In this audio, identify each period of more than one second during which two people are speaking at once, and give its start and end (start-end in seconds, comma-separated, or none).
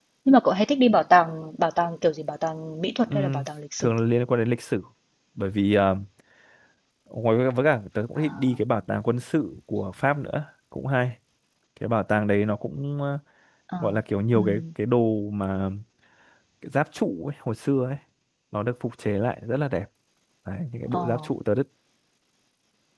none